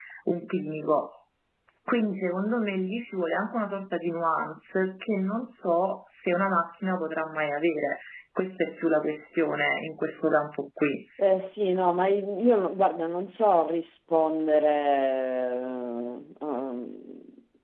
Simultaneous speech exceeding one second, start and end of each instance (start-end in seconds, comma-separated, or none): none